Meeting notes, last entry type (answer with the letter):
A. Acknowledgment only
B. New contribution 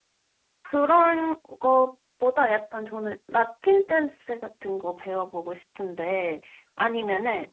A